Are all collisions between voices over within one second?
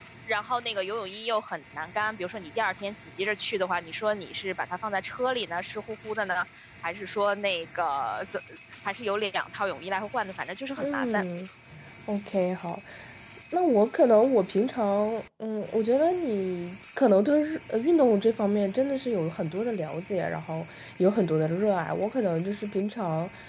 Yes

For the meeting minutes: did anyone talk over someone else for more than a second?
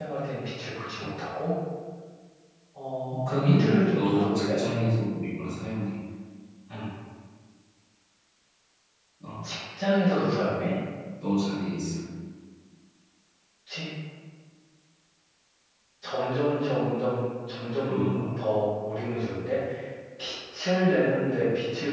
Yes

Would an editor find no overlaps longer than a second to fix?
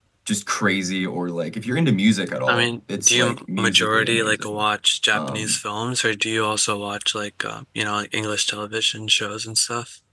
No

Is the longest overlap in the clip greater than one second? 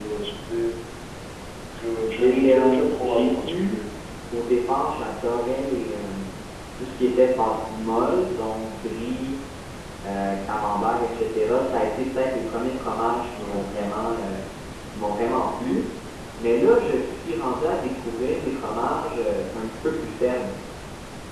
Yes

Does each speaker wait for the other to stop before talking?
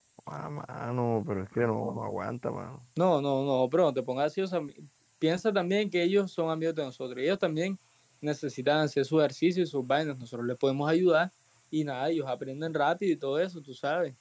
Yes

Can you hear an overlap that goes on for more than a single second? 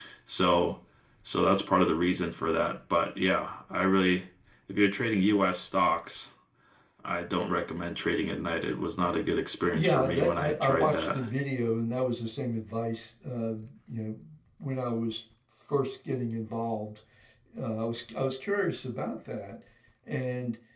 Yes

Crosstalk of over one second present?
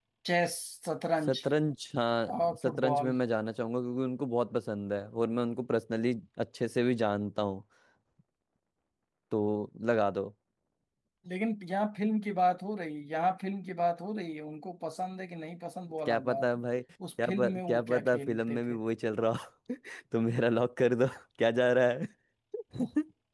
Yes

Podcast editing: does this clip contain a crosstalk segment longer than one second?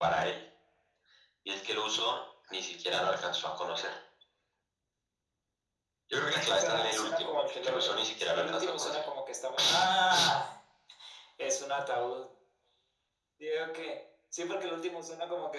Yes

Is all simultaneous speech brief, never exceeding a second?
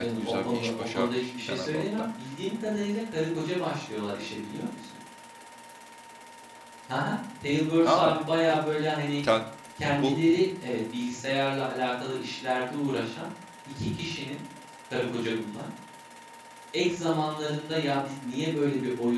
No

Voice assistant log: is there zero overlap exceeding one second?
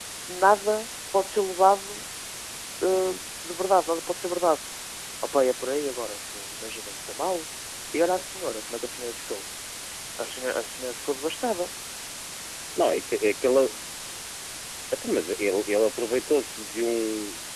Yes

